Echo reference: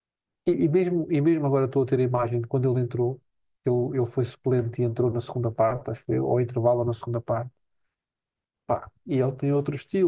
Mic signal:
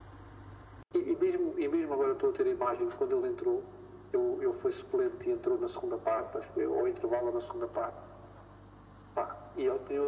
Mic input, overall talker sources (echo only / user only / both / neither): echo only